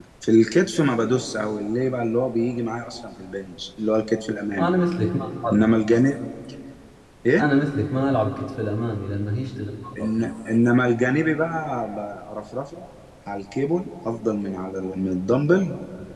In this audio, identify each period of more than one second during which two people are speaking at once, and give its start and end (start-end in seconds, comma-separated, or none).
none